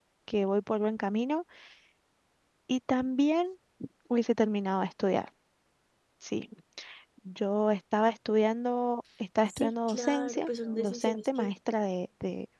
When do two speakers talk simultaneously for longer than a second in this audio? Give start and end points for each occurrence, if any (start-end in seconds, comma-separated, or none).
9.5-11.5